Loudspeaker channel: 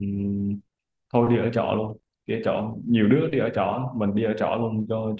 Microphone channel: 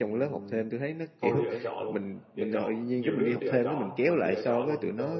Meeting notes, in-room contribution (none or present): present